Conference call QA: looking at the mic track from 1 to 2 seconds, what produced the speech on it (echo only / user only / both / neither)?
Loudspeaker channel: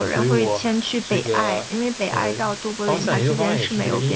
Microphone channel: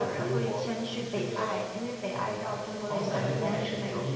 echo only